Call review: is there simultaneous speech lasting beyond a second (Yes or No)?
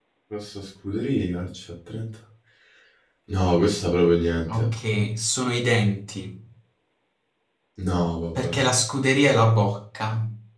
No